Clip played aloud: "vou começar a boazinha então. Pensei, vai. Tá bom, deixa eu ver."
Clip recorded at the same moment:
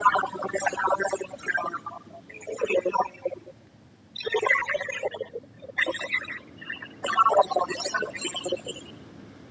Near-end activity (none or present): none